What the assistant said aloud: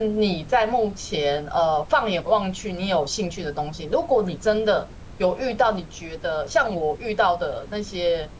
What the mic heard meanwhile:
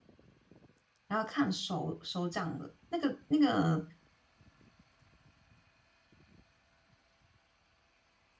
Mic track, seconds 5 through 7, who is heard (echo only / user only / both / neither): neither